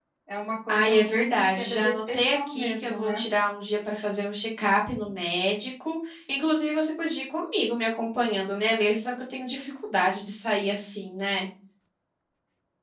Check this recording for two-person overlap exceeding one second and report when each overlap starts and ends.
0.7-3.2

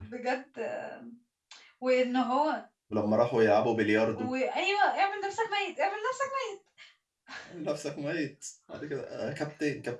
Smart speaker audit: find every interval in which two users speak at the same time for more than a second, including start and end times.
none

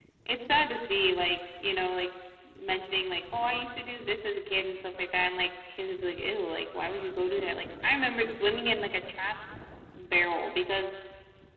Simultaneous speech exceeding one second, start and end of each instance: none

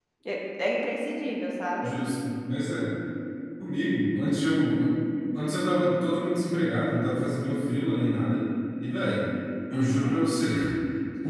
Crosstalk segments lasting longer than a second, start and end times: none

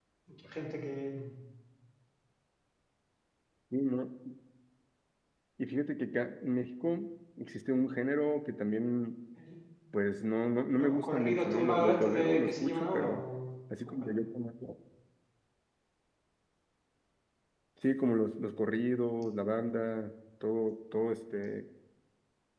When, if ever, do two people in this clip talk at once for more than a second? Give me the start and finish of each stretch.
10.8-13.2

